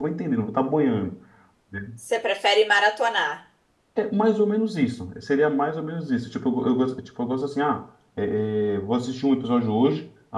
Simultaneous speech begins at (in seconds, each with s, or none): none